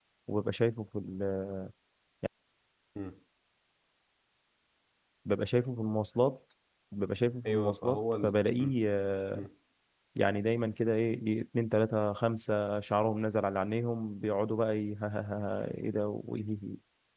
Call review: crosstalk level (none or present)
present